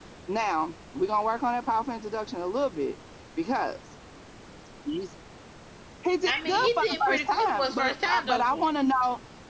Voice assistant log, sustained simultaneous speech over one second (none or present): present